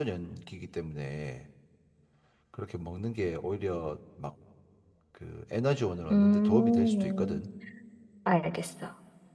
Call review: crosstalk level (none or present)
present